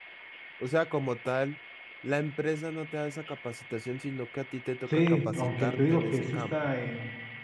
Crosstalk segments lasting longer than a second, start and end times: 4.9-6.5

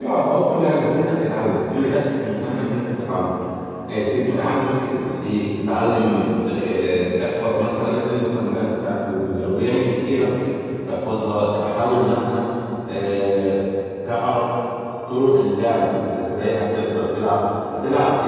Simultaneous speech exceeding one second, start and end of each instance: none

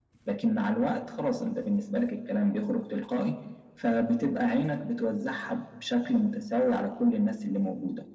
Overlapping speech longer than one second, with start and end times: none

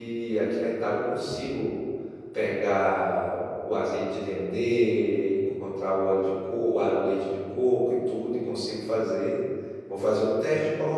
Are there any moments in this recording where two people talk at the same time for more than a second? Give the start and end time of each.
none

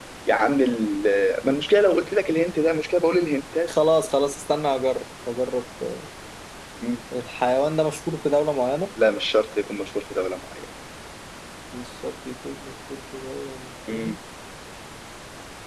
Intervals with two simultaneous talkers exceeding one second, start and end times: none

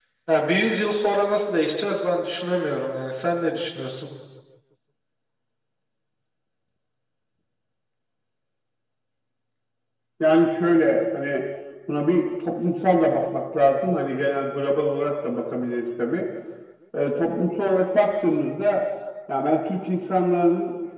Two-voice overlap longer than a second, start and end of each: none

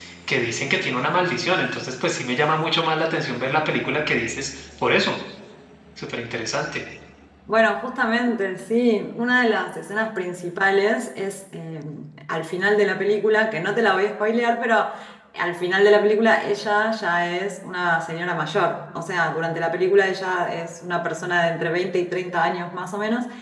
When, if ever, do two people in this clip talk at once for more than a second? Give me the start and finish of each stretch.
none

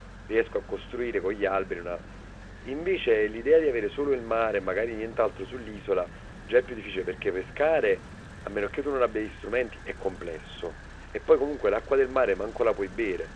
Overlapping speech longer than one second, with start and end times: none

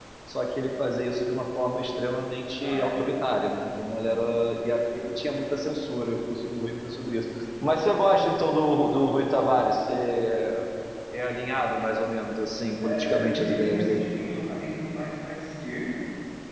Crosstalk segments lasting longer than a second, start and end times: 12.8-14.1

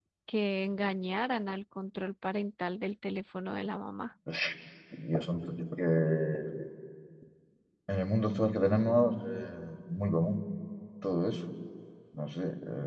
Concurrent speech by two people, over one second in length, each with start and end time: none

